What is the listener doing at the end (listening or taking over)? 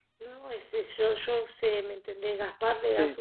listening